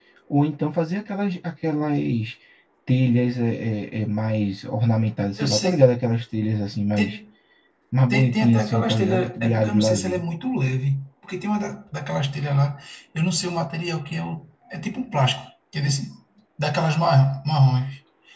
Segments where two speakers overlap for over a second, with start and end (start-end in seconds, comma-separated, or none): 8.1-10.2